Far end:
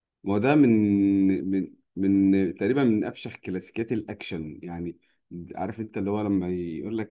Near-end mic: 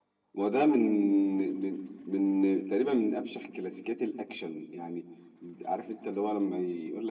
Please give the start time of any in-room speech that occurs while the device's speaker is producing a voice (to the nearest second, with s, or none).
none